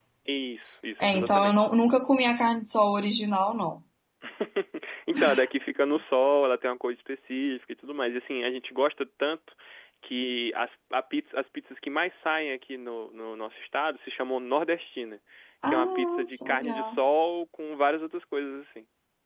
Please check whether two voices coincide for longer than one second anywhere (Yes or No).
Yes